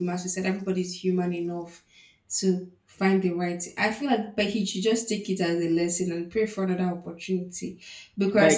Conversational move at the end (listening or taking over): taking over